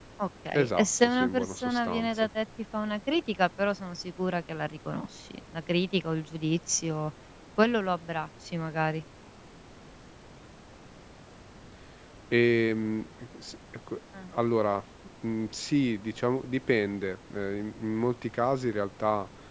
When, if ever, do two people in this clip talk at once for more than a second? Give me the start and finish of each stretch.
0.5-2.3

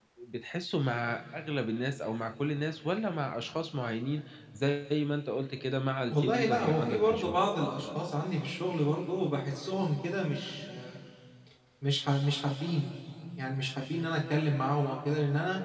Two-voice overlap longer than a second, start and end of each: 6.1-7.4

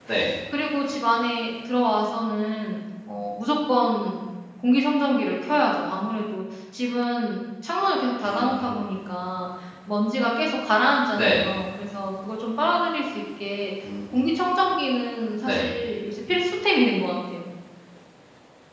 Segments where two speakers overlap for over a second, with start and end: none

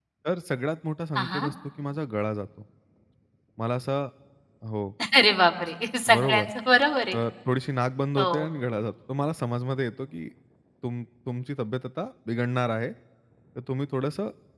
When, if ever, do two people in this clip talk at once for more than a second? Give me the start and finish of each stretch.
none

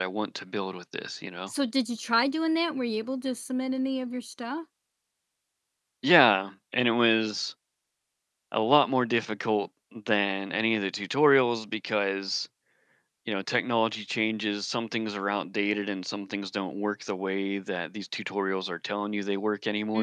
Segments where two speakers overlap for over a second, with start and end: none

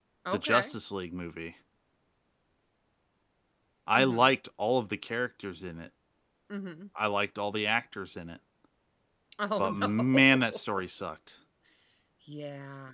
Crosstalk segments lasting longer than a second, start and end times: 9.6-10.8

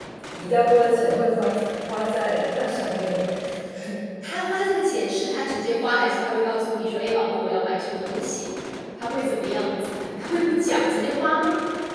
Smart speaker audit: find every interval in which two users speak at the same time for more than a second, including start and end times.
none

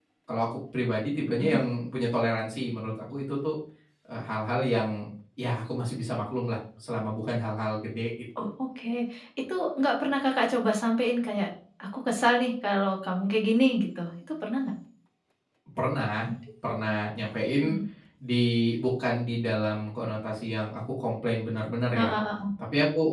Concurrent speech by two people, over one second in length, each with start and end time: none

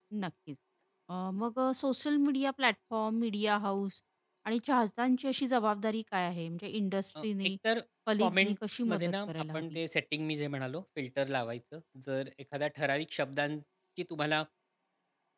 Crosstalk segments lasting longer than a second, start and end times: 8.2-9.8

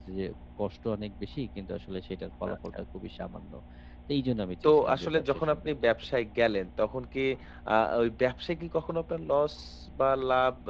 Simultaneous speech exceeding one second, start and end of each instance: 4.7-5.9

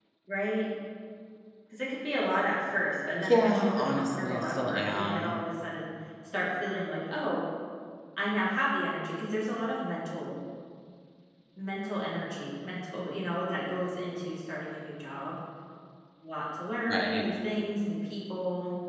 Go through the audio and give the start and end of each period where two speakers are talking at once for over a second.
3.1-5.3

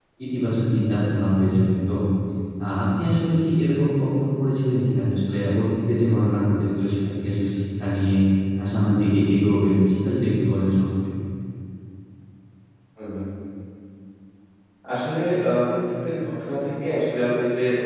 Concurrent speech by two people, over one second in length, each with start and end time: none

